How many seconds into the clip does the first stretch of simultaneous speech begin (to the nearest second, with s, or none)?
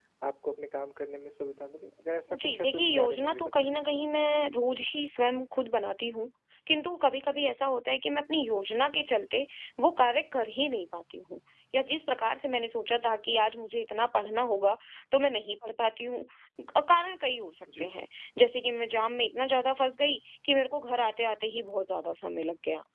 2 s